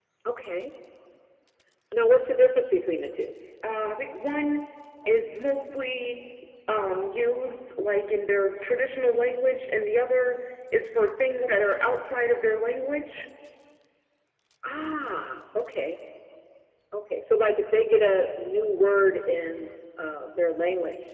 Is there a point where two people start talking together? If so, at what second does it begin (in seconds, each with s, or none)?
none